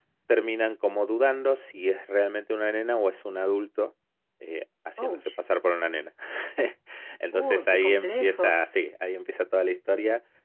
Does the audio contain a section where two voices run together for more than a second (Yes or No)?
Yes